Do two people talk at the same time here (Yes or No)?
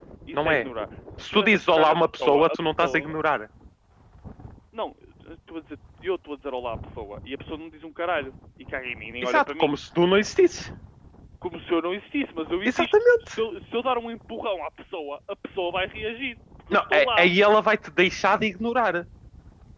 Yes